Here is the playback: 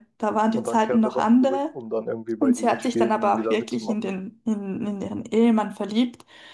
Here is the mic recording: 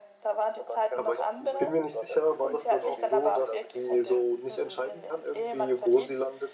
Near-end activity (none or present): present